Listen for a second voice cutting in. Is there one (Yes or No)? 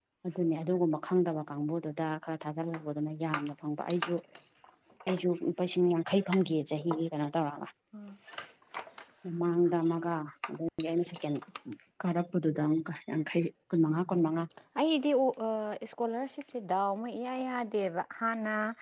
No